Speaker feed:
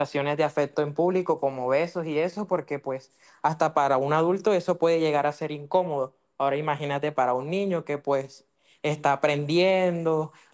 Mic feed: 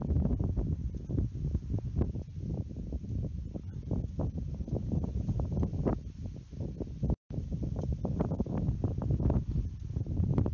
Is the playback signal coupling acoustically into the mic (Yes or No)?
No